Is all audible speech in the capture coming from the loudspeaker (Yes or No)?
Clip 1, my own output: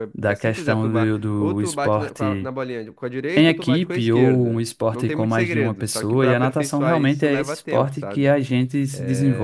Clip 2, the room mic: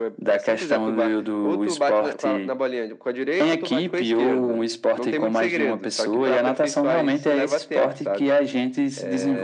Yes